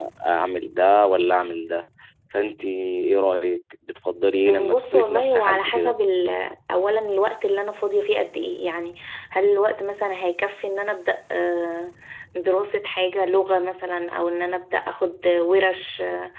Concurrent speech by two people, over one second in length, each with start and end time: 4.5-5.9

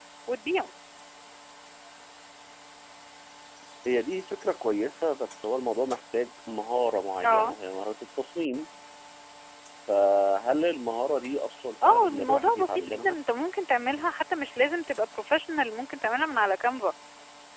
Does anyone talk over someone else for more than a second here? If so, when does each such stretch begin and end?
11.8-13.2

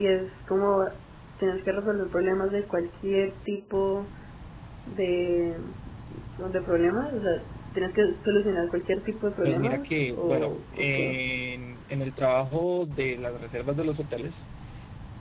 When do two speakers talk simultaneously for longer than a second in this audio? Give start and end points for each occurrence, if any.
9.4-11.1

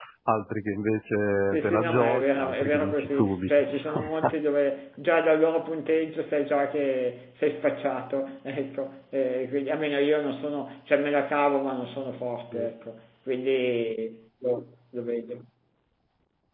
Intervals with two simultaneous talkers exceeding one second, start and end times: 1.5-4.0

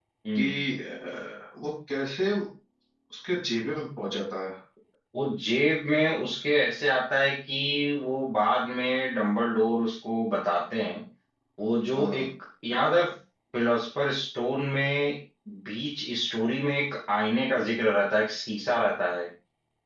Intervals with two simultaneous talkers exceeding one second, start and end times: none

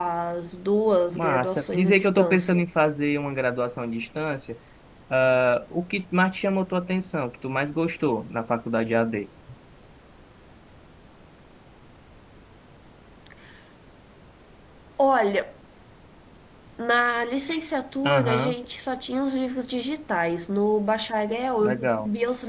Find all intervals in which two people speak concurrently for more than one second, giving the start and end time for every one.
1.1-2.7

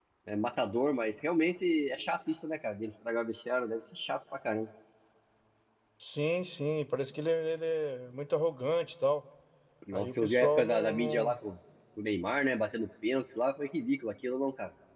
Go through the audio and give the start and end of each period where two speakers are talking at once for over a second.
9.9-11.4

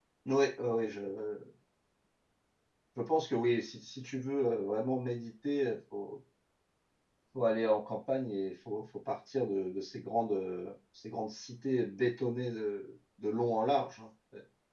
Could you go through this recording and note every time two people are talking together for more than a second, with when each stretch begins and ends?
none

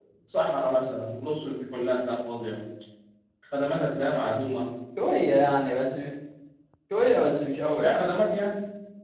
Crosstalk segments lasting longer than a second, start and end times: none

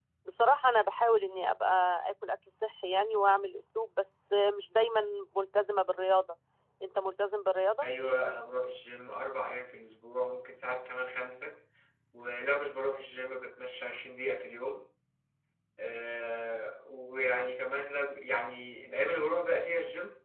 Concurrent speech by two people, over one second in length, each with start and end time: none

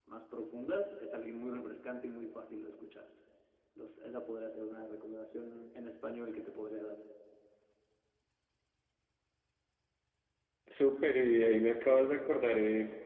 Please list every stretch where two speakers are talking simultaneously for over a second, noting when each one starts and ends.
none

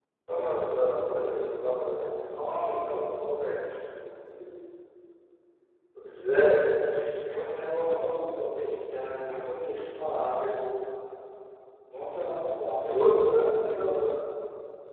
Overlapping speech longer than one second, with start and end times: none

